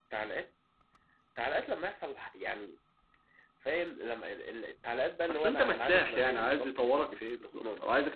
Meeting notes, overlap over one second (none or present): present